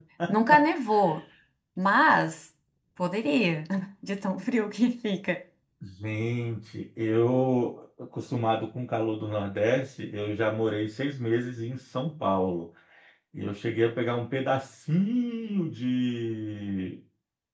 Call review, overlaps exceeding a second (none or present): none